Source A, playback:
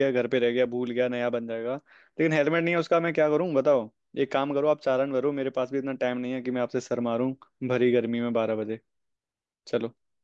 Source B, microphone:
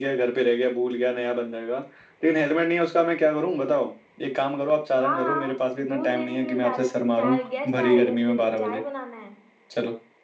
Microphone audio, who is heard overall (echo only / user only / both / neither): both